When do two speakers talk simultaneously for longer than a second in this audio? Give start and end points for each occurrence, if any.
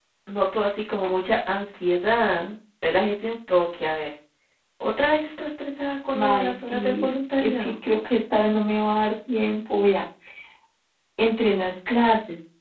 6.1-7.7

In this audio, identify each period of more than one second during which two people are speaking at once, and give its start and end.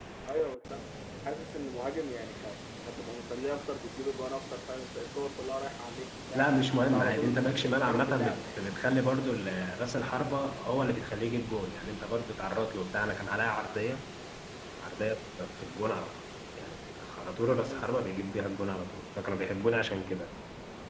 6.3-8.6

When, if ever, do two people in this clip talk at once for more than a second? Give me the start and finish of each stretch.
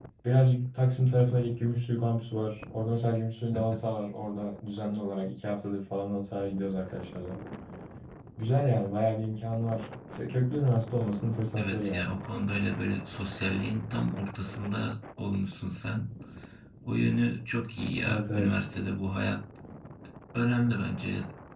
none

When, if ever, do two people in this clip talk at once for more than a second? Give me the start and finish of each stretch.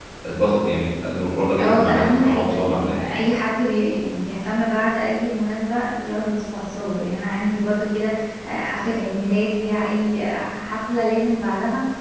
1.6-3.0

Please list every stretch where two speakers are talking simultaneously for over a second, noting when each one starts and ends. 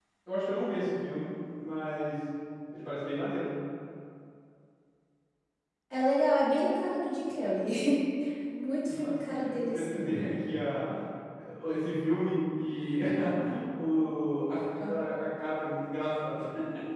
8.9-10.1

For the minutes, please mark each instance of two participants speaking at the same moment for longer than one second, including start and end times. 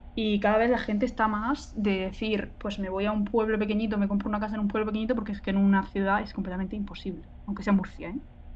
none

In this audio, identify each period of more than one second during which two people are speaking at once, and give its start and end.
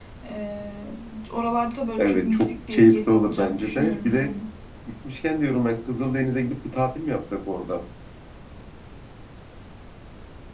2.0-4.3

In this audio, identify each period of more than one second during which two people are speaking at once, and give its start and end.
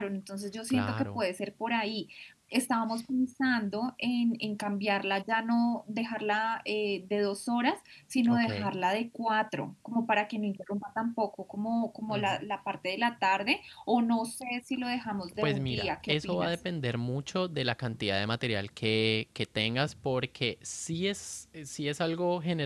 15.4-16.6

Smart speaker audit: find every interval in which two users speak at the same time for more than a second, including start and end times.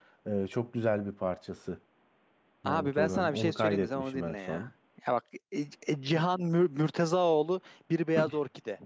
2.6-4.7

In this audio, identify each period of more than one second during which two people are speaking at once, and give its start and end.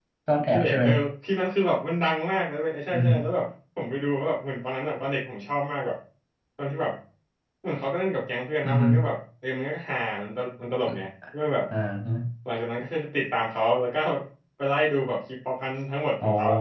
none

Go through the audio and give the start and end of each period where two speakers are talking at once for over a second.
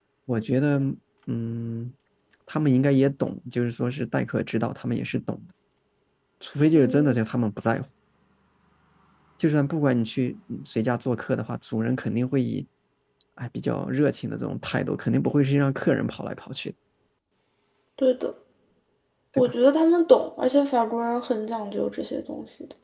none

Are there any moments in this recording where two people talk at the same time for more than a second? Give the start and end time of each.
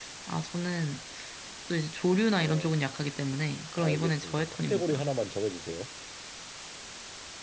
3.8-5.0

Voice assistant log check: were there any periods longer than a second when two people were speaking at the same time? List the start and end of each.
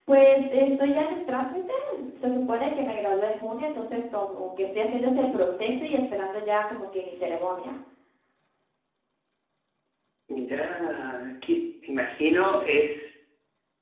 none

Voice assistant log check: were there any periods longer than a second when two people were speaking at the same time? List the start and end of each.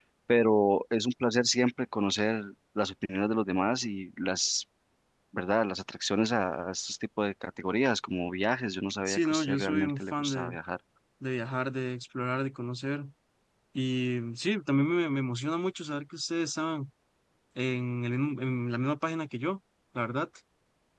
9.1-10.6

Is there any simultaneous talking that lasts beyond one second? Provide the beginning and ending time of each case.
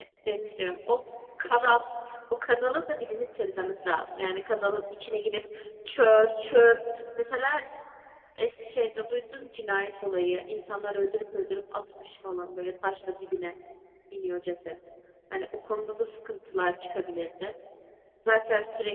none

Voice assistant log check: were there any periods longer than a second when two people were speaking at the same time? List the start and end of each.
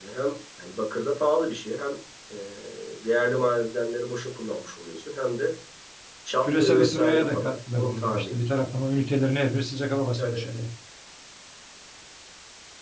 6.4-8.4

